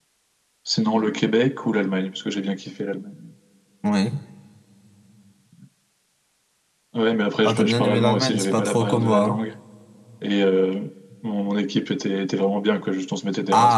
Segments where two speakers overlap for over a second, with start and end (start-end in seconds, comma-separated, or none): 7.4-9.4